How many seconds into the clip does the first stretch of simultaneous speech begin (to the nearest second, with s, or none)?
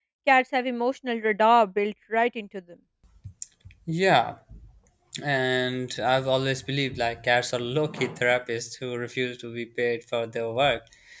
none